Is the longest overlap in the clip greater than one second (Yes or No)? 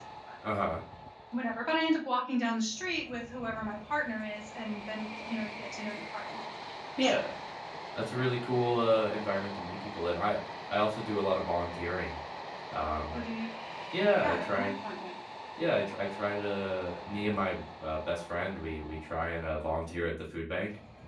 No